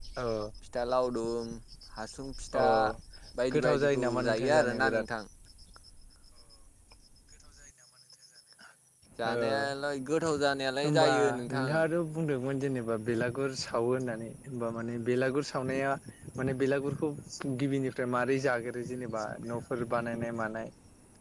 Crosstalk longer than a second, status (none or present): present